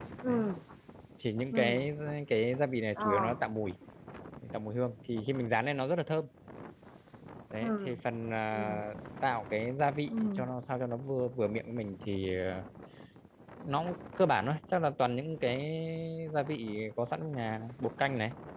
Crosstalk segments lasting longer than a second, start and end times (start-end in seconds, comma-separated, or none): none